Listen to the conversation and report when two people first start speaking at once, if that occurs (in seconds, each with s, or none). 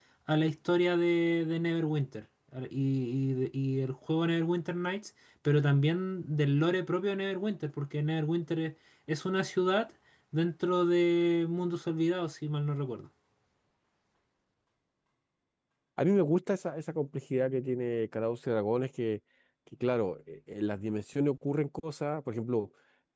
none